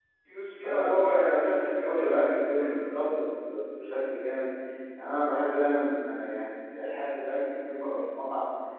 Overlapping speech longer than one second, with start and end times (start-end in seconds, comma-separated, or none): 0.6-2.7